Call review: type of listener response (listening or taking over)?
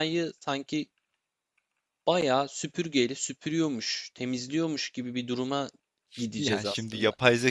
taking over